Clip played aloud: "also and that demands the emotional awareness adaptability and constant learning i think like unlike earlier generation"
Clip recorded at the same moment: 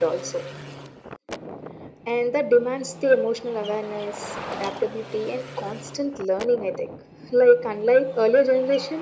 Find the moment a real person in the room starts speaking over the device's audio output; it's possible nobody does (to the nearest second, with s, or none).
none